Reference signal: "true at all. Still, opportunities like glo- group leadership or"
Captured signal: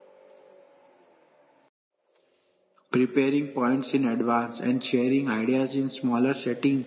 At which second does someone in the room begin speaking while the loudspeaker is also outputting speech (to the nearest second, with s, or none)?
3 s